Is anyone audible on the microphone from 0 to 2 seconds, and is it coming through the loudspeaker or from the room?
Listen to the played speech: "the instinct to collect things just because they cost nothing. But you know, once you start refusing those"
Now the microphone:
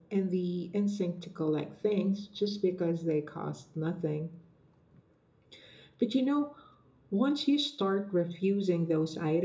echo only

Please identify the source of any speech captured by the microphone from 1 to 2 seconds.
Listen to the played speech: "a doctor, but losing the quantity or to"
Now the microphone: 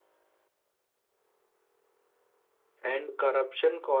neither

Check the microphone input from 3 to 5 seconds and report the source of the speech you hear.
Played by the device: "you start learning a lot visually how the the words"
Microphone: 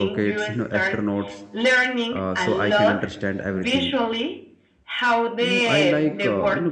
both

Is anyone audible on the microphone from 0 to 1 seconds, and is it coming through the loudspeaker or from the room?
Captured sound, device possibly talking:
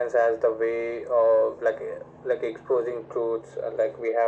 echo only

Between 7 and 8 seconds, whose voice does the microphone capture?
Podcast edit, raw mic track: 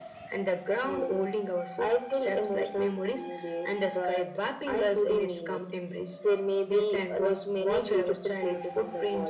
echo only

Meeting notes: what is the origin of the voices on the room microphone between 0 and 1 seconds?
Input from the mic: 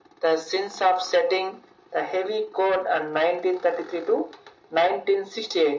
echo only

